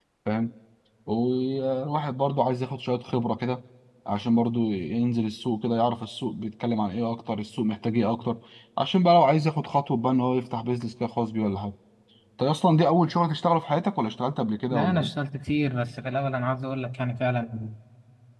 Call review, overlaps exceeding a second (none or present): none